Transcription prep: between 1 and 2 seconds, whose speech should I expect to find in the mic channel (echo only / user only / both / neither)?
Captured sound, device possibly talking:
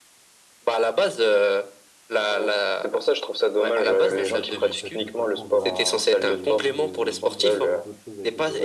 echo only